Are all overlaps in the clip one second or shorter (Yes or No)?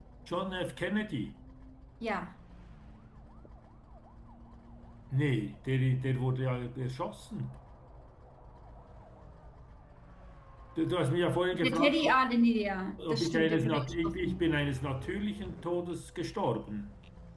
No